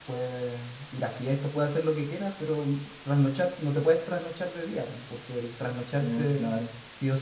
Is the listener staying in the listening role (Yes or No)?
Yes